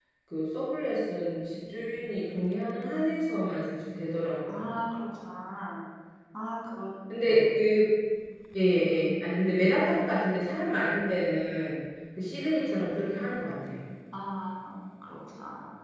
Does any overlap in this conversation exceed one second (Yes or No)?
No